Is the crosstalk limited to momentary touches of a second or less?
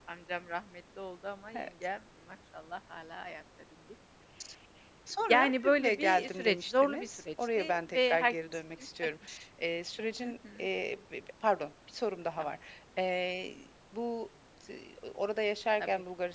No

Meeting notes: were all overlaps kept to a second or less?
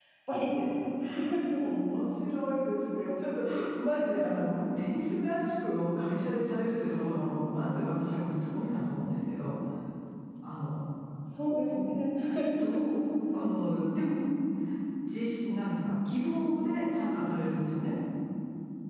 Yes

